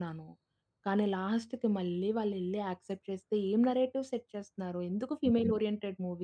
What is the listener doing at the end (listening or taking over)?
listening